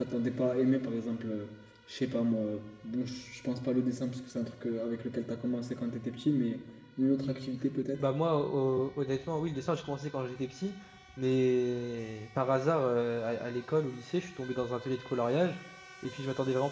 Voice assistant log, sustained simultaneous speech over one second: none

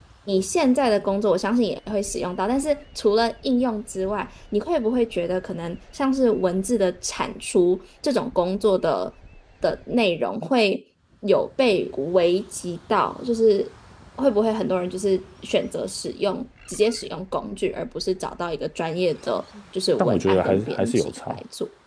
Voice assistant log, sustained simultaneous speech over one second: present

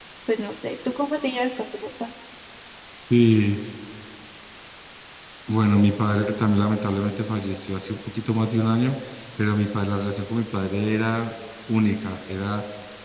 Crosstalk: none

